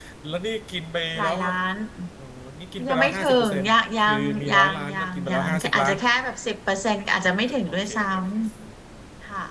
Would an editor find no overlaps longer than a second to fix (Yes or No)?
No